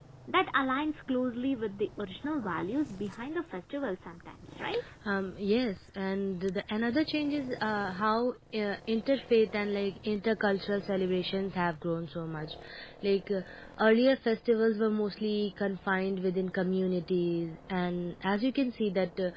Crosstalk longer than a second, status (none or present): none